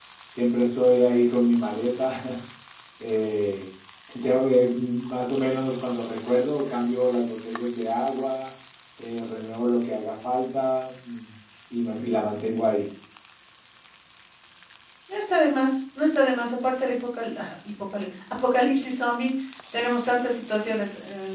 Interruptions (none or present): none